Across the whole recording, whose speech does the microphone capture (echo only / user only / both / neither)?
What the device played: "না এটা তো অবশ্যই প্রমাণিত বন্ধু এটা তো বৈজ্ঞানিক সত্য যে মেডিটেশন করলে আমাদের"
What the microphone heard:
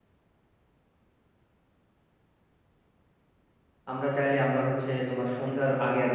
user only